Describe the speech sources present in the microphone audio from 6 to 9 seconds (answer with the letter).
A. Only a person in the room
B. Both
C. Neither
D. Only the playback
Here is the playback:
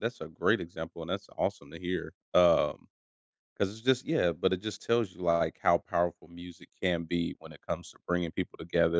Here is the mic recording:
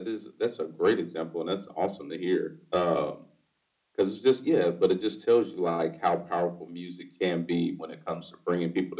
D